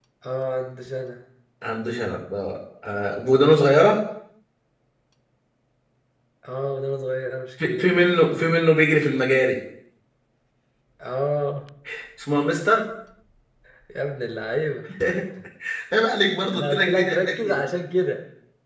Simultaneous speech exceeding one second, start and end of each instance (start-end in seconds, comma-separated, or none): 16.3-17.6